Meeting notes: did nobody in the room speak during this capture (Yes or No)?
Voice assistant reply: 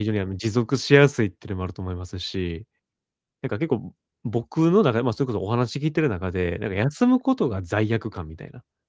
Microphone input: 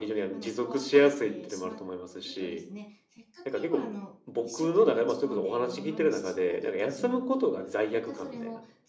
No